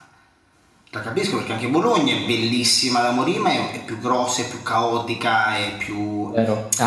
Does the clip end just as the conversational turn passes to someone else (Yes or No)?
Yes